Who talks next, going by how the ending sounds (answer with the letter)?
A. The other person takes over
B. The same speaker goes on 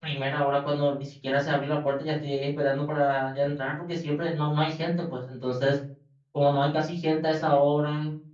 B